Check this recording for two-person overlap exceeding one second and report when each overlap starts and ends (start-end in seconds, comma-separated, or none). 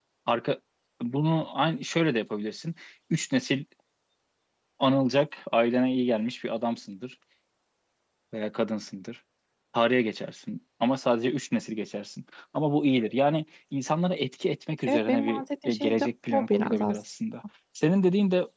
14.9-16.8